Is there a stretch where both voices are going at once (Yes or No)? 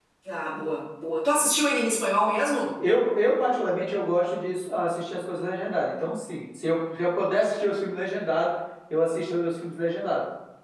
No